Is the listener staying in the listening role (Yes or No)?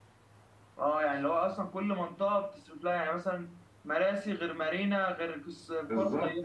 No